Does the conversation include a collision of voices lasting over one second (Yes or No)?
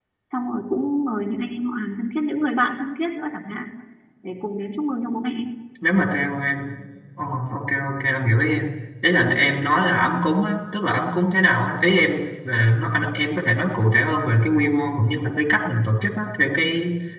No